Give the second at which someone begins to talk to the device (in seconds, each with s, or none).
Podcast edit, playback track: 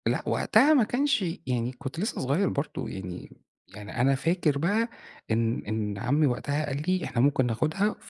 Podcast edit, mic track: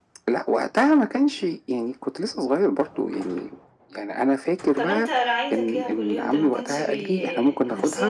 4.8 s